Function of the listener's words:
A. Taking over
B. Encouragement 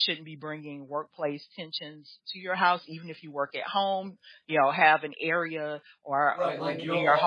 A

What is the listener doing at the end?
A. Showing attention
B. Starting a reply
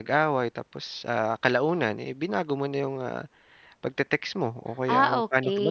B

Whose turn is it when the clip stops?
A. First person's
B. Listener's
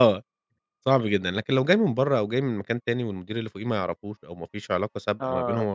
A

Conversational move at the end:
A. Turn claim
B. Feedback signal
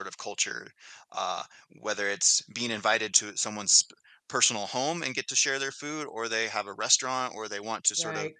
B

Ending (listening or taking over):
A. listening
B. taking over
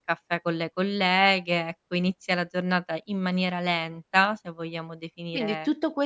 B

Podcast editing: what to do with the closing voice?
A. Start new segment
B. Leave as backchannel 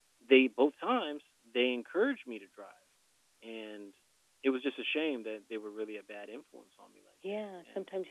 A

